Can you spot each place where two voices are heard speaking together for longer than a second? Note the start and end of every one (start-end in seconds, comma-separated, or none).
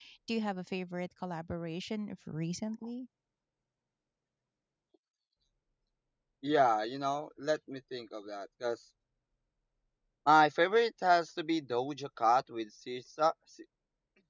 none